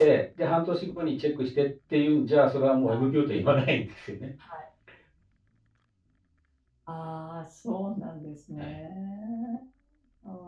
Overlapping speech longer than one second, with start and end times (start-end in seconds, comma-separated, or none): none